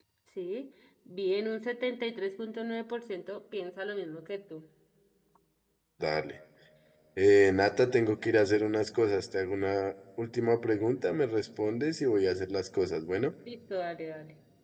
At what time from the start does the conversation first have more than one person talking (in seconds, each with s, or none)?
none